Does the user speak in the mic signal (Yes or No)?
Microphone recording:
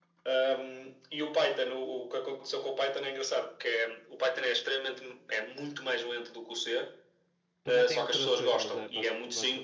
Yes